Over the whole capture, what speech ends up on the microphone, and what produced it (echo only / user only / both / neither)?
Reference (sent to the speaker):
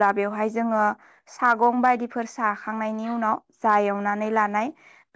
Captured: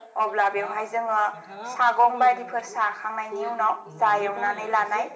both